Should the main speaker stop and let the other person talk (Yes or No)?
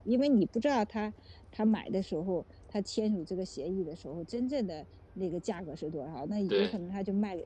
No